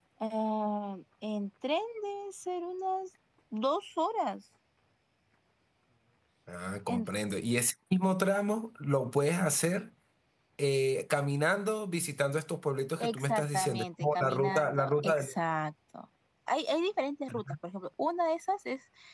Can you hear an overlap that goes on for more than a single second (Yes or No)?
Yes